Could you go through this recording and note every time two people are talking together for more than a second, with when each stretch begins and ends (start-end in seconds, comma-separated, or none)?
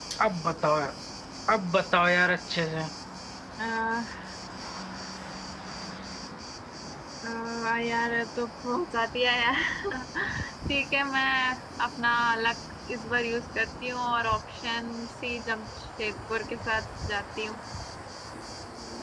none